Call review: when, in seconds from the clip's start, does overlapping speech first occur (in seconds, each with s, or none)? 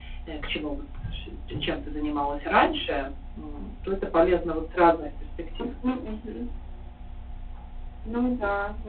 none